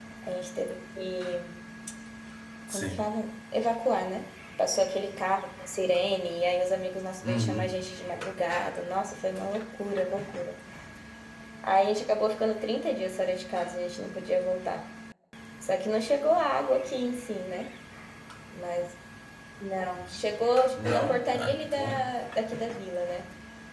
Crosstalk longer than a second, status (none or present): present